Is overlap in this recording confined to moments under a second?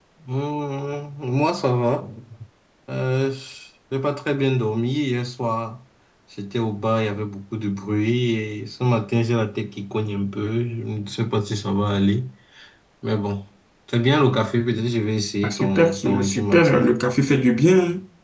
No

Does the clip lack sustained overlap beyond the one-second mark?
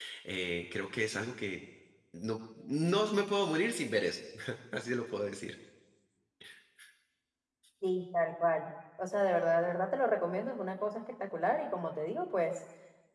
Yes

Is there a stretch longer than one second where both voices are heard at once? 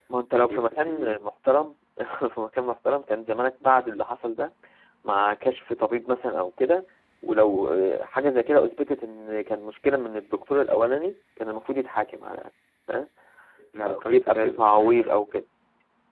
Yes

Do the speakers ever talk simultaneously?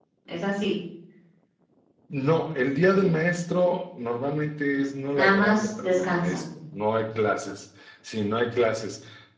Yes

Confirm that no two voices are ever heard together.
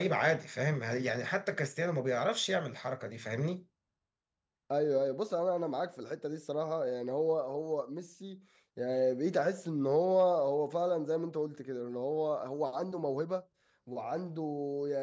Yes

